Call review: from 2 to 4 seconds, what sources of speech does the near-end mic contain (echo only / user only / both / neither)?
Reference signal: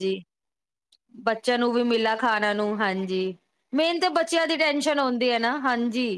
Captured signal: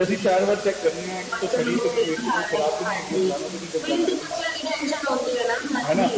both